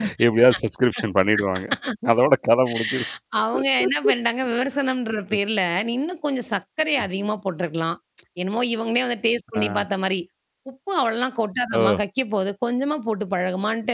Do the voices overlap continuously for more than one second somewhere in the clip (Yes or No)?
No